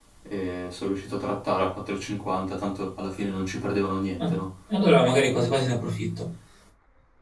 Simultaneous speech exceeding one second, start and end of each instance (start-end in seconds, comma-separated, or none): none